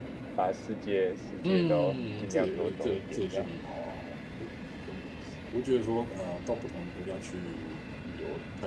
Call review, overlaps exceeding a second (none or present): present